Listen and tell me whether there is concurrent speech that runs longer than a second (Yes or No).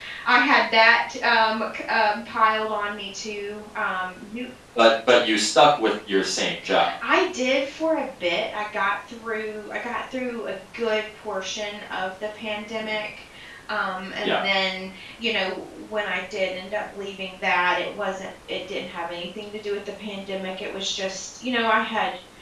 No